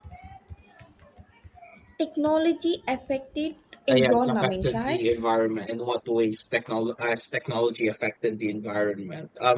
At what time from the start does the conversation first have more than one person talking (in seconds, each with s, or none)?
3.9 s